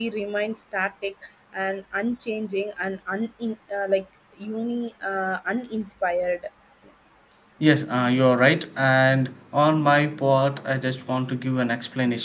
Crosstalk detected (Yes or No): No